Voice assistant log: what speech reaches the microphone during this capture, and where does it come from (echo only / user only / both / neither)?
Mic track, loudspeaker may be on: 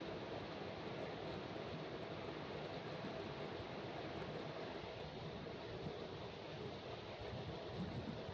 neither